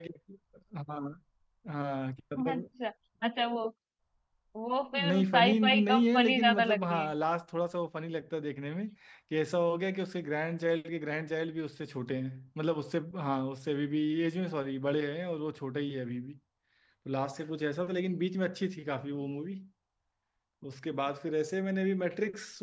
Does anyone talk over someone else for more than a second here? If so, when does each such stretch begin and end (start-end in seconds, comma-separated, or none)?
5.1-7.1